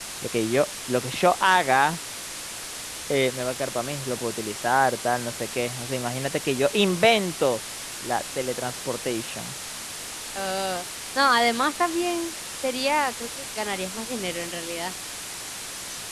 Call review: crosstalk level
none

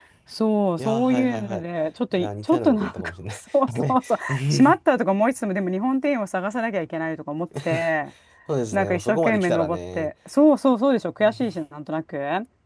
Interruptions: present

